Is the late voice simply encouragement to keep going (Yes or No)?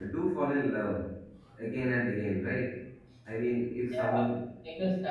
No